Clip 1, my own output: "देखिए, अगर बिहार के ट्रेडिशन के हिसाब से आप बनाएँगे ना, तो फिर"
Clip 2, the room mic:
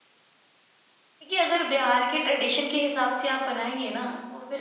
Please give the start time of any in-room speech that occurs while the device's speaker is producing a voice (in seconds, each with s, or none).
none